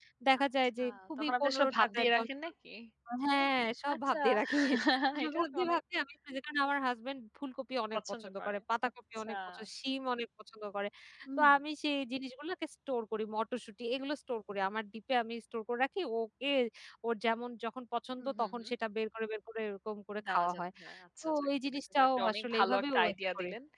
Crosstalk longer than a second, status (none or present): present